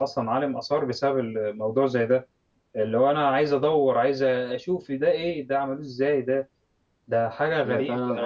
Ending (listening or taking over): taking over